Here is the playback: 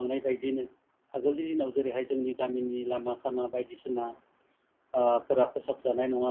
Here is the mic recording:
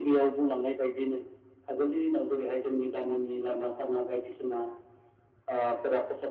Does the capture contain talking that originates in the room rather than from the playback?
No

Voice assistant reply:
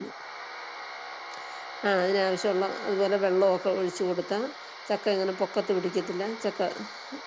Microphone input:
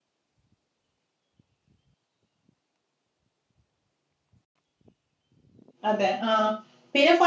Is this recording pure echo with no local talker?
No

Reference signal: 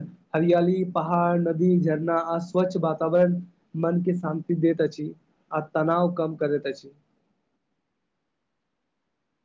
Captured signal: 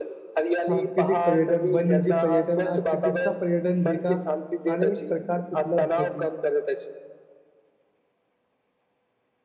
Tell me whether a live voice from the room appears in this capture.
Yes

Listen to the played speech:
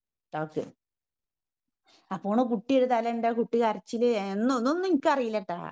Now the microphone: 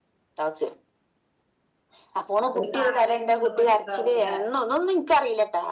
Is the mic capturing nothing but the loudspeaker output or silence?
No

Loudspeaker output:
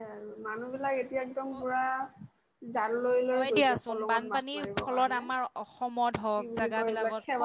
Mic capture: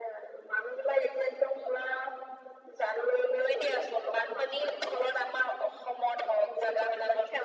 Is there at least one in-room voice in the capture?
No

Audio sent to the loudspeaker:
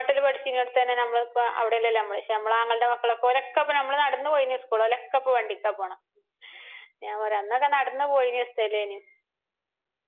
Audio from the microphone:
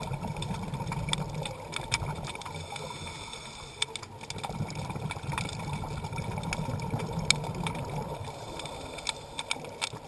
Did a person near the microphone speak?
No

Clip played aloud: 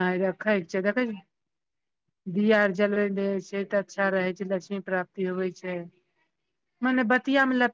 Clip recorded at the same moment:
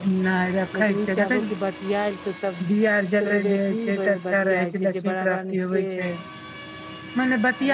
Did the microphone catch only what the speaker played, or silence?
No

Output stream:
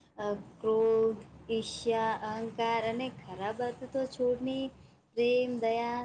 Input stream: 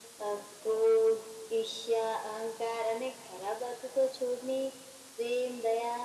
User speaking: No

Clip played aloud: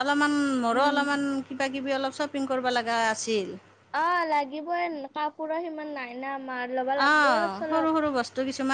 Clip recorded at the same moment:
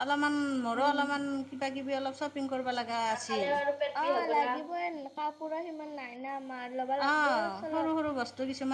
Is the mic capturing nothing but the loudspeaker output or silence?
No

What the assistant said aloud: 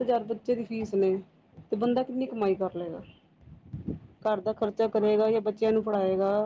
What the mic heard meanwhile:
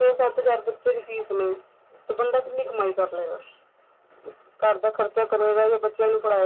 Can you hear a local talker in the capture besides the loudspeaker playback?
No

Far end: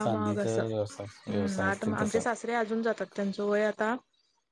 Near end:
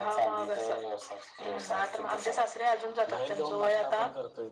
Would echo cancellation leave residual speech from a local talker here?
Yes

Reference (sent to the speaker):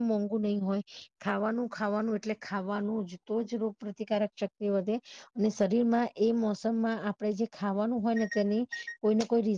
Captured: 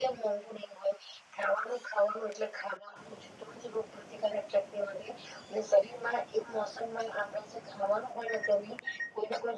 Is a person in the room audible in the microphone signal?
No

